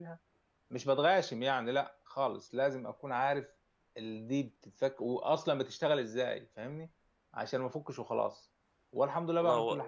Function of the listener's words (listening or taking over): listening